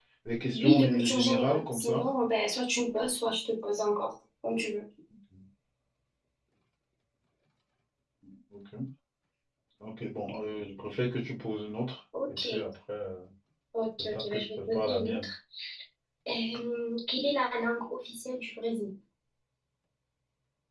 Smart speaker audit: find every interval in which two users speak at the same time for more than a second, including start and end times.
0.5-2.0, 14.0-15.3

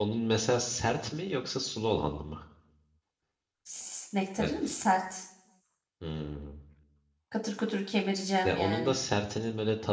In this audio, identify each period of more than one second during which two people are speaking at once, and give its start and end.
none

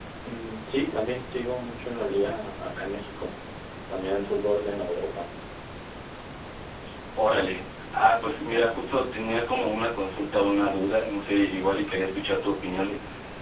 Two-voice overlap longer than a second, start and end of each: none

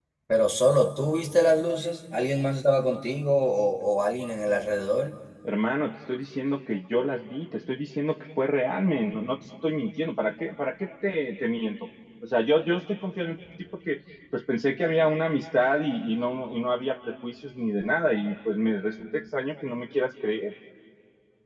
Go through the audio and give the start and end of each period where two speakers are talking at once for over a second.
none

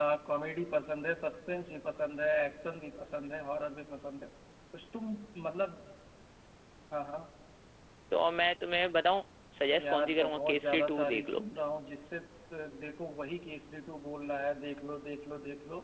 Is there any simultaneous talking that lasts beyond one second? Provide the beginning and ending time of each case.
9.8-11.4

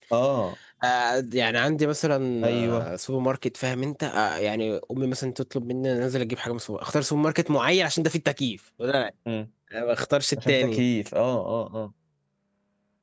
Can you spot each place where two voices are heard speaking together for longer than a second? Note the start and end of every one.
none

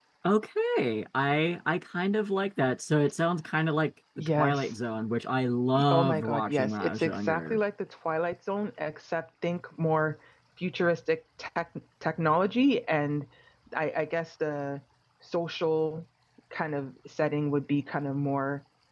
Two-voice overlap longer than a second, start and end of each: 5.9-7.6

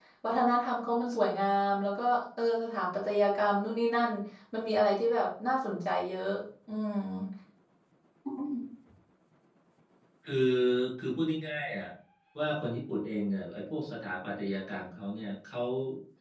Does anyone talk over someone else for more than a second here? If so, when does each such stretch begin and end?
none

